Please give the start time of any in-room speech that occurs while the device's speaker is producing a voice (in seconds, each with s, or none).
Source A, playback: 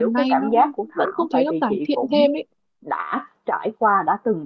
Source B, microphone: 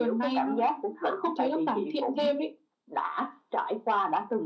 none